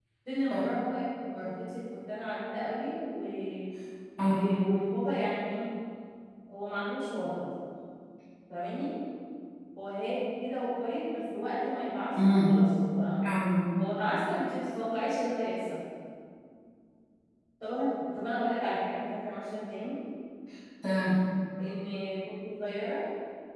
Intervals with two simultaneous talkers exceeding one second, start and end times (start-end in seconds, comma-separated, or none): none